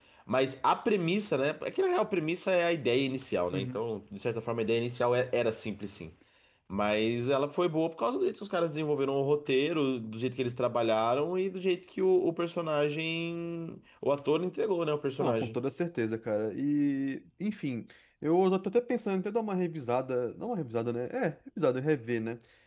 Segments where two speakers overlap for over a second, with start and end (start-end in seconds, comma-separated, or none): none